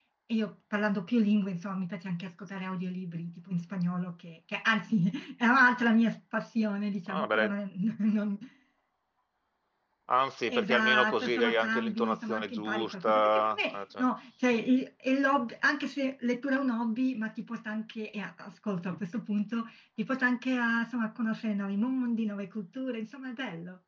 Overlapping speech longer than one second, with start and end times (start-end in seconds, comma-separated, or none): 10.5-14.1